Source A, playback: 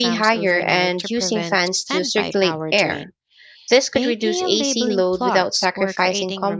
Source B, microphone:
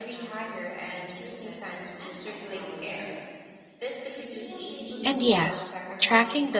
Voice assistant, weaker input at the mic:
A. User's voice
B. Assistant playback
B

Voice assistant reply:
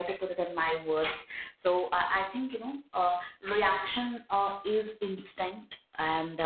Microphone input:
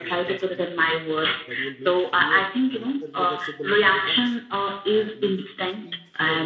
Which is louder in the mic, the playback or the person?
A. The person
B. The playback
B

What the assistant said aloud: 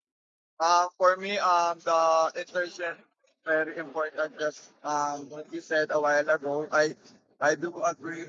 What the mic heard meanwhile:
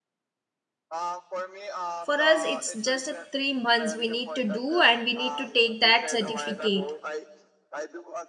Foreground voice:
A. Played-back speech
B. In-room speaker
B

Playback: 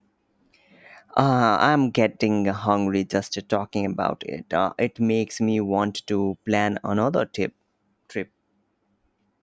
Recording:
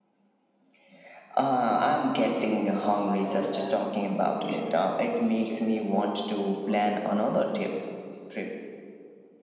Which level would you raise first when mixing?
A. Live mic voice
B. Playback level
A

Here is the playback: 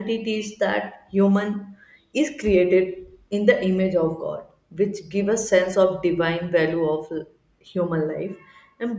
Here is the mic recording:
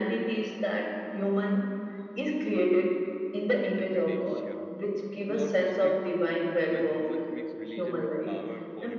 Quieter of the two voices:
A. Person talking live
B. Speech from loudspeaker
A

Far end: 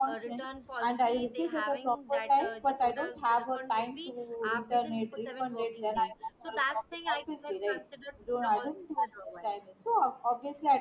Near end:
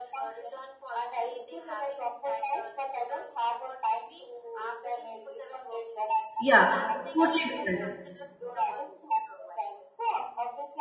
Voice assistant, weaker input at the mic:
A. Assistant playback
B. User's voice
A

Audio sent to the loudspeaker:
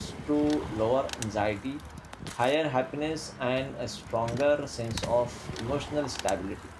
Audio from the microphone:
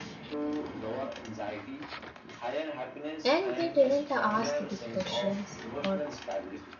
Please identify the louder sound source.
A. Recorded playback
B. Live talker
B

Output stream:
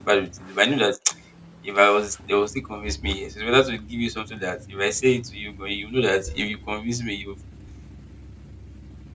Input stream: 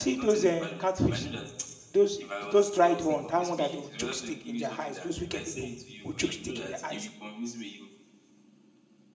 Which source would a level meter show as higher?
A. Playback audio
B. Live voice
B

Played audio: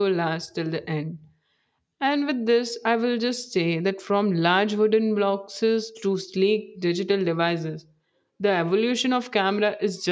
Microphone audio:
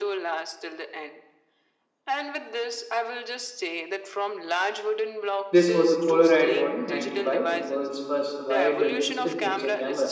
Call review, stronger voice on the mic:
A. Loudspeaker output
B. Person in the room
B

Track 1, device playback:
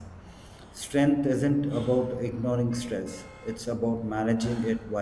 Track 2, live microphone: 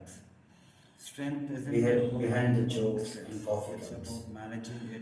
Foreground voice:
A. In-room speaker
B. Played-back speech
A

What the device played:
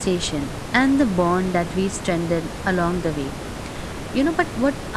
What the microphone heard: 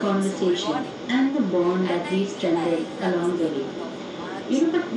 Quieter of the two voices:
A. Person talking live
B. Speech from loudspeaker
A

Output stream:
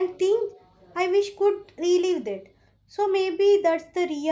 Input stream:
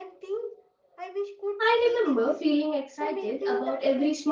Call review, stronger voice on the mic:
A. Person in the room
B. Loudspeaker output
A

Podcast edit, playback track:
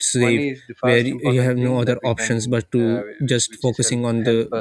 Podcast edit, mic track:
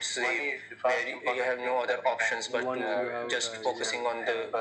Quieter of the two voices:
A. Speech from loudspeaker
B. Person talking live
B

